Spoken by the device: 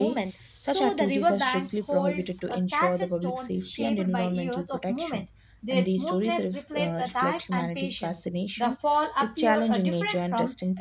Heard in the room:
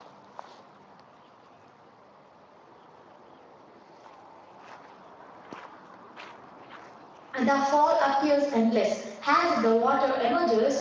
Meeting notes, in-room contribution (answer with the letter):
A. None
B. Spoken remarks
B